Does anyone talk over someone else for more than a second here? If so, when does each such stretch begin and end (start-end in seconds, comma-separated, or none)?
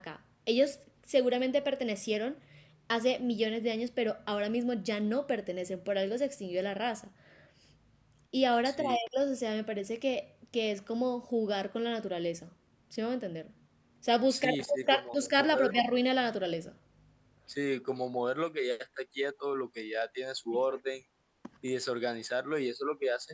14.3-15.7